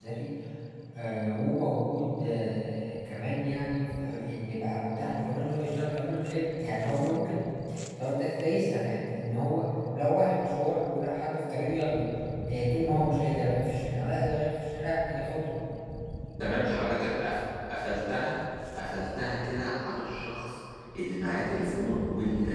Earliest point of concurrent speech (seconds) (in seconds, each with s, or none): none